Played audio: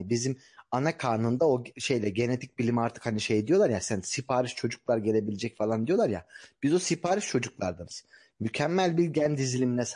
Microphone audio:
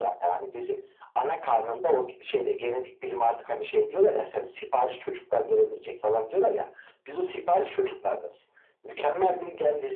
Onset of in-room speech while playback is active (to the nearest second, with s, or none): none